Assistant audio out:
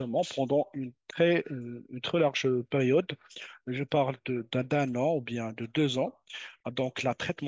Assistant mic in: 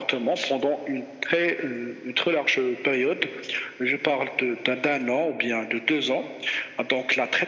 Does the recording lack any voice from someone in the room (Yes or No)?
Yes